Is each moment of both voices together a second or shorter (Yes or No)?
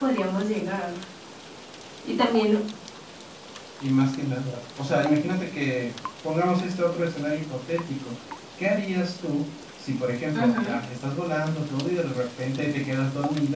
Yes